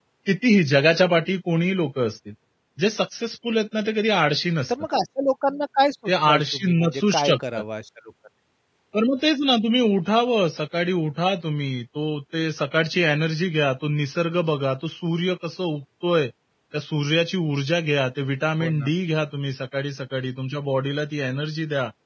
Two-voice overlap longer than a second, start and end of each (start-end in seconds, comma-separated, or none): 6.2-7.6